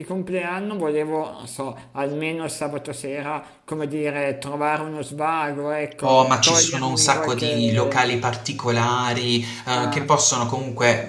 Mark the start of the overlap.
6 s

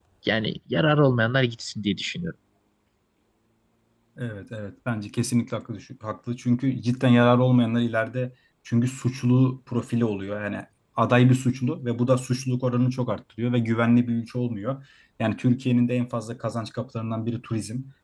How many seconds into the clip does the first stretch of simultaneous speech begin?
none

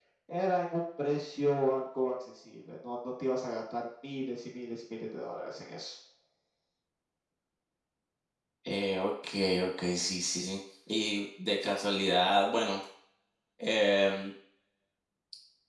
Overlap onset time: none

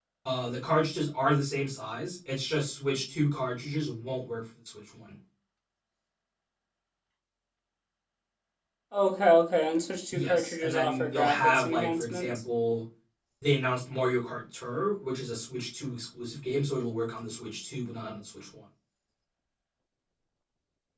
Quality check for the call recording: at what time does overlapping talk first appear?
10 s

